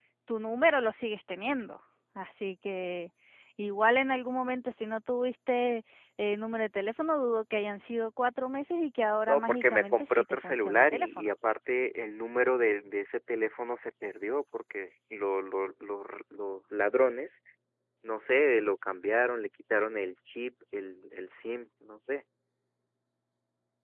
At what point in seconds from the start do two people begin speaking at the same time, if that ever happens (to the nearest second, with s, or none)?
9 s